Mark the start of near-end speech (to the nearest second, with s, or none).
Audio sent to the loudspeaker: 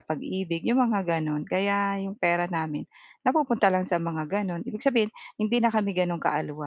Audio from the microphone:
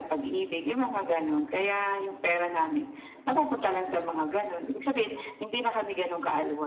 none